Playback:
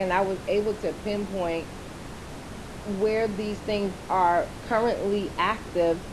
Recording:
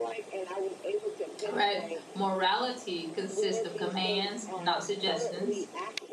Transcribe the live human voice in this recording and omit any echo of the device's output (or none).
All right. Morality consists of commands, not suggestions.